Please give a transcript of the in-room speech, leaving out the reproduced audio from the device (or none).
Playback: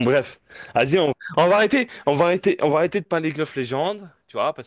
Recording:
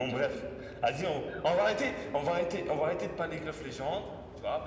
none